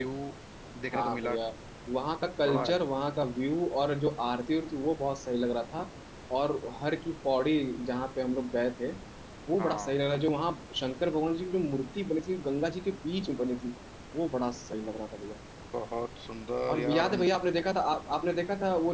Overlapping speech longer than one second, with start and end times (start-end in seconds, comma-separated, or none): none